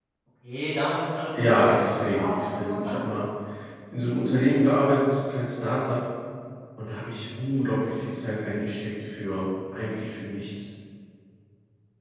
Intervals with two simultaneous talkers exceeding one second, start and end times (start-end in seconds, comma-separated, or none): 1.4-2.9